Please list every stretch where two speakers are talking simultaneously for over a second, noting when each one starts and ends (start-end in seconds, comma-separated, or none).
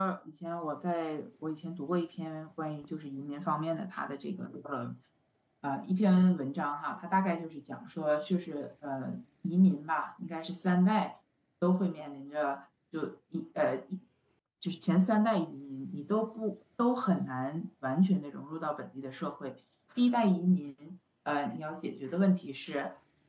none